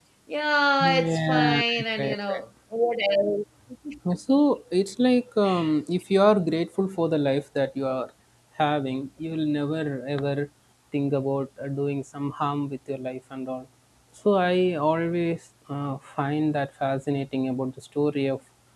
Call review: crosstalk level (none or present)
present